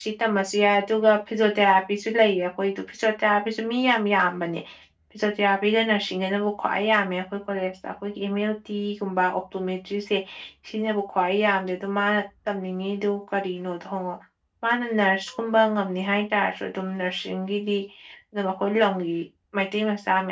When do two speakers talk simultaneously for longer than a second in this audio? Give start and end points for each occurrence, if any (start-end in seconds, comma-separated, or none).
none